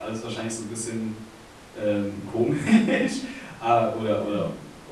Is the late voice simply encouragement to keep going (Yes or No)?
Yes